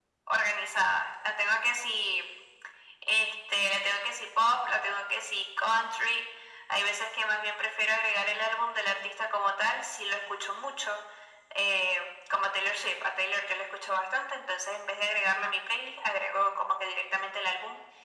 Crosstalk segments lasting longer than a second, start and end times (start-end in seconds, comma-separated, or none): none